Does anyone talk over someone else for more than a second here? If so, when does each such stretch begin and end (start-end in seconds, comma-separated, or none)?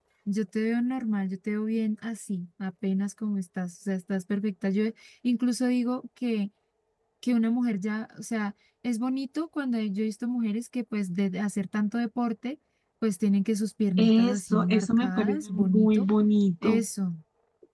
14.0-16.1